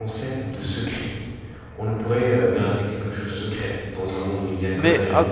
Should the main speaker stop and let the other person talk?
Yes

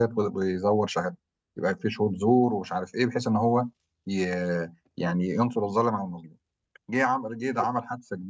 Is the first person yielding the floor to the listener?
No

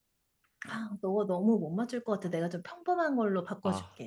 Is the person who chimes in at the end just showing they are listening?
No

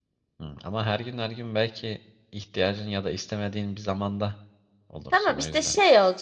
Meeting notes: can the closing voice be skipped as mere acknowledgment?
No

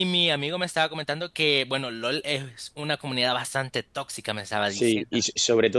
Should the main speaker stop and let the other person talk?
Yes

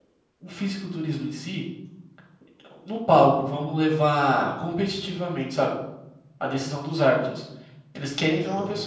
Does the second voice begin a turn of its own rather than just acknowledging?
No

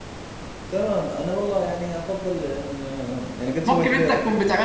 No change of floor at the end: No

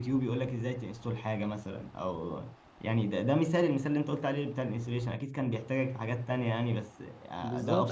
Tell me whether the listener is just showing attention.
No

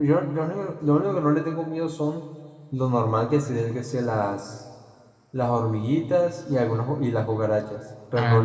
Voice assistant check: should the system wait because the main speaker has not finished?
No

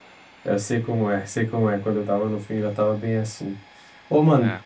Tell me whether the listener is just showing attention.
Yes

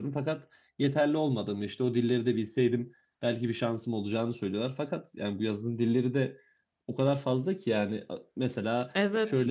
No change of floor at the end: Yes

